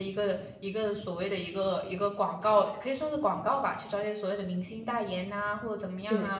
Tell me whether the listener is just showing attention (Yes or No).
Yes